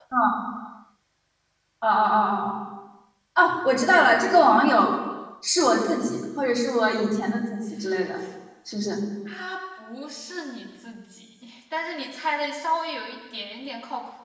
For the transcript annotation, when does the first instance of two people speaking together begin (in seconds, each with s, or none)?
none